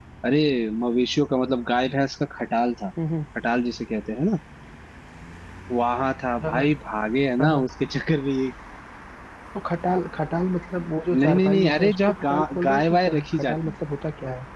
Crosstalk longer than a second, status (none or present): present